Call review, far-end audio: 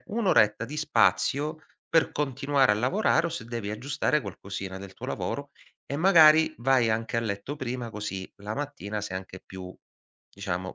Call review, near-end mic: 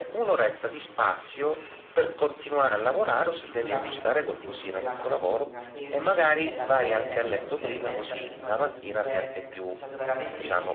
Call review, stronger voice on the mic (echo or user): echo